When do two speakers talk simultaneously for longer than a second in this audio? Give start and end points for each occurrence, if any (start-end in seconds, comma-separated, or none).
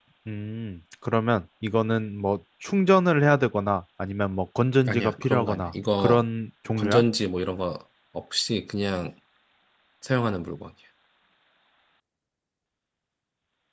4.9-6.2